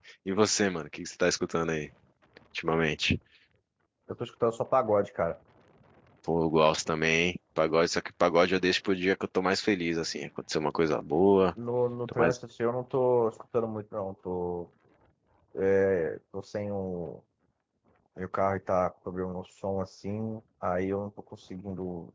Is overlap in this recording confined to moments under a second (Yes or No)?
Yes